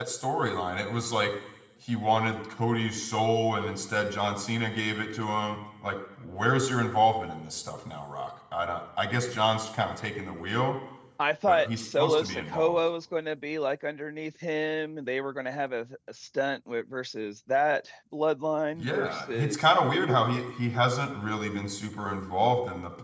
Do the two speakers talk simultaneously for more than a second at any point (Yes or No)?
Yes